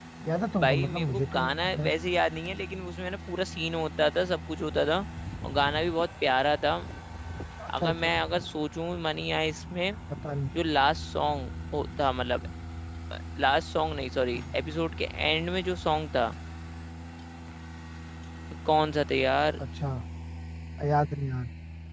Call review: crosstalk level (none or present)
present